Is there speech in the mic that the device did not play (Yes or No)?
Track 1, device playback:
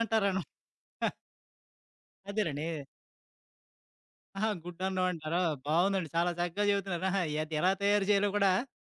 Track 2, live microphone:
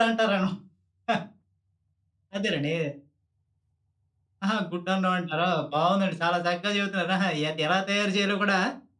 No